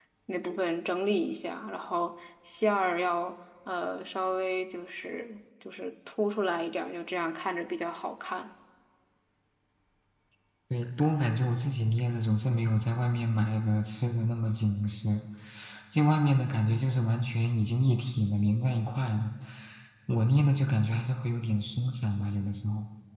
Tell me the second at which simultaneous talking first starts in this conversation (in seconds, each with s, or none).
none